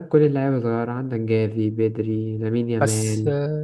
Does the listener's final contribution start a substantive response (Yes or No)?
No